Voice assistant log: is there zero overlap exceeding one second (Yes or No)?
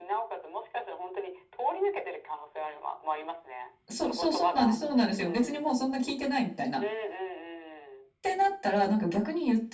No